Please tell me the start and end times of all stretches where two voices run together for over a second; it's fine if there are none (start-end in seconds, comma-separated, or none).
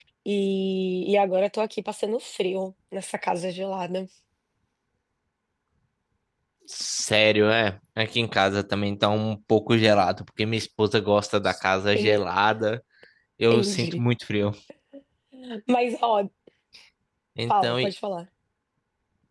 none